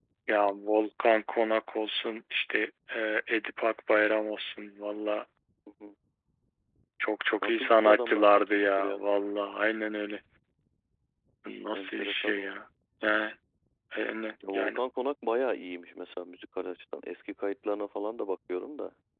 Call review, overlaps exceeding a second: present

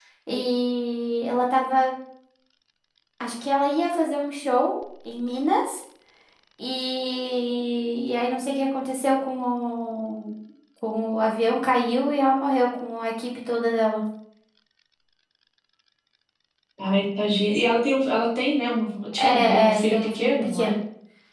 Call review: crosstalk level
present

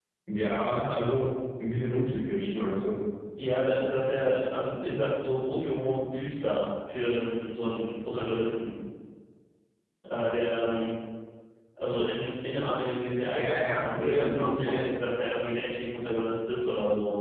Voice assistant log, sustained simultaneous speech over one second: present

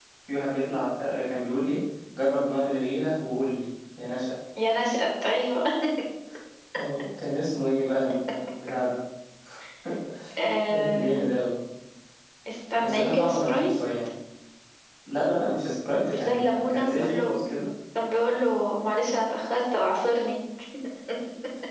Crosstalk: present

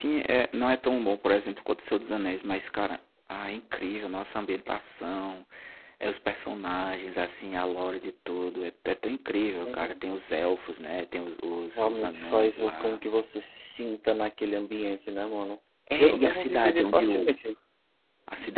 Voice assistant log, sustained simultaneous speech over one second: present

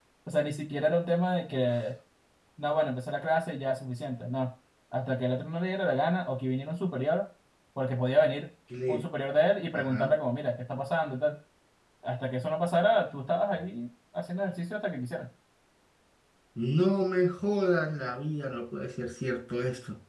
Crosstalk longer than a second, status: none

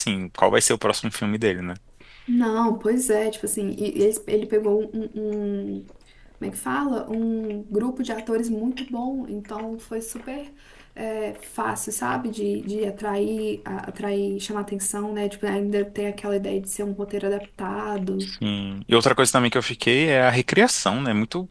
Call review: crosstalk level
none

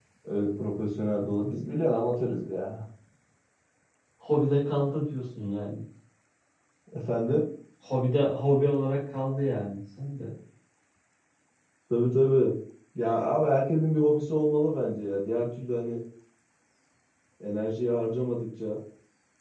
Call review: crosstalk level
none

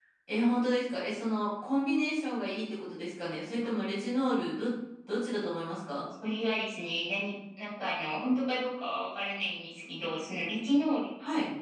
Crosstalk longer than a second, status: none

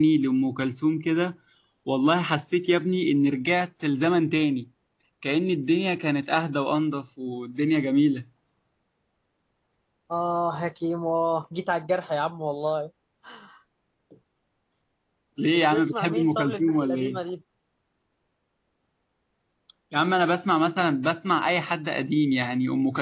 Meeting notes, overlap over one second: present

